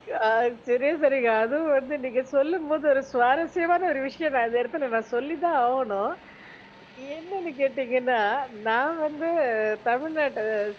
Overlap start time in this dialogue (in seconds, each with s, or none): none